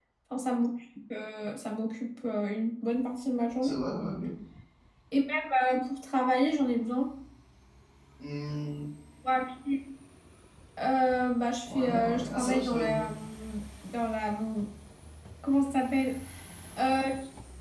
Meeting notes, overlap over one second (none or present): present